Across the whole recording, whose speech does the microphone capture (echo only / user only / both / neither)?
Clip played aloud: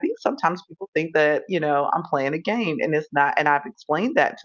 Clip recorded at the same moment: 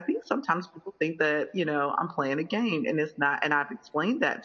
echo only